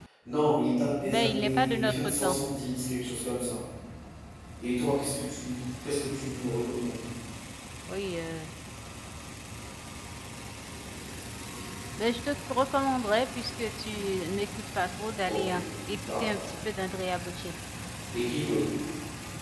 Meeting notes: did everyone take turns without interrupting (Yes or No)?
No